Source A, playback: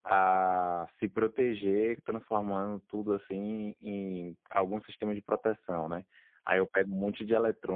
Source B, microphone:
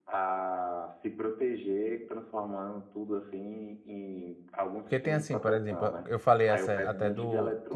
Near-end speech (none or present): present